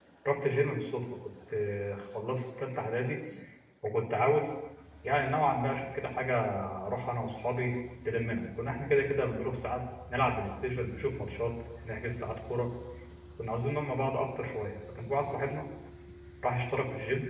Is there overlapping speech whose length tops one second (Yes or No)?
No